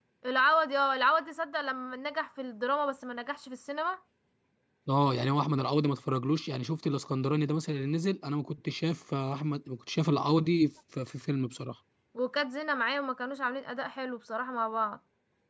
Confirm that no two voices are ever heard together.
Yes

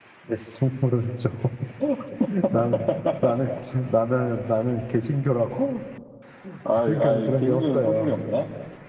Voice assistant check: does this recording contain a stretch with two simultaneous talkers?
Yes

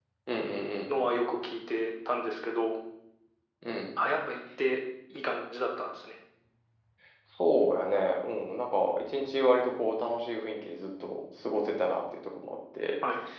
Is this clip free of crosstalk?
Yes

